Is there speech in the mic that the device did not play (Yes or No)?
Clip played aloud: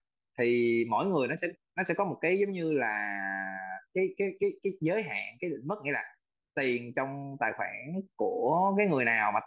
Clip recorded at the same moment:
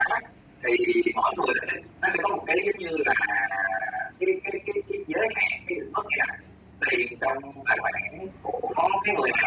No